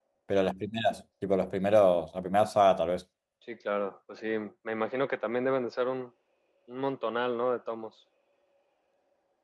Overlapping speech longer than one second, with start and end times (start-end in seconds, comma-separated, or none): none